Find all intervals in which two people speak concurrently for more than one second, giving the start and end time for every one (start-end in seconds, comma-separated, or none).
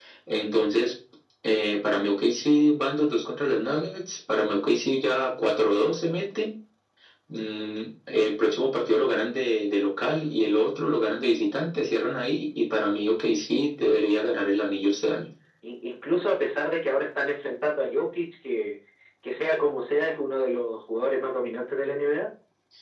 none